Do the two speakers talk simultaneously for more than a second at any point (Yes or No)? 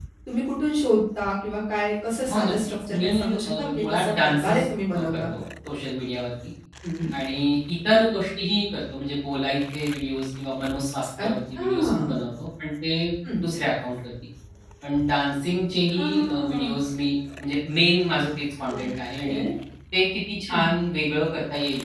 Yes